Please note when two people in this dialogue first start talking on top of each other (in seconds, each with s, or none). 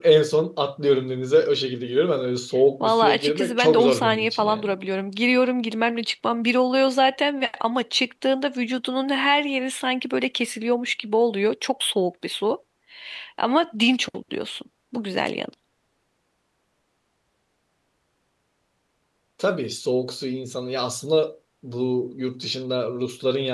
2.8 s